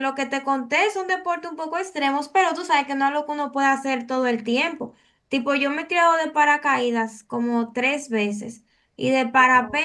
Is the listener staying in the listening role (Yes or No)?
Yes